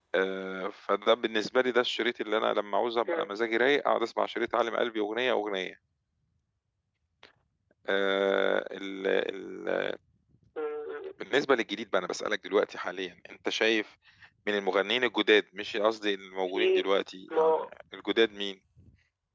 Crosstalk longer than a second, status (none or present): none